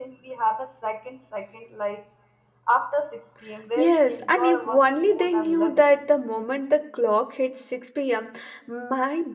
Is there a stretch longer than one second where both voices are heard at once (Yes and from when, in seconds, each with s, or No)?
Yes, from 3.8 s